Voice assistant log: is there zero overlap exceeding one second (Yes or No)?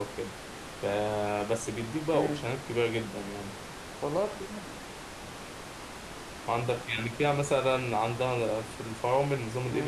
Yes